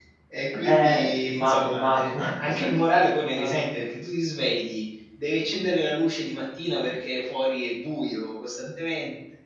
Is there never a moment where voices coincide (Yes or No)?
No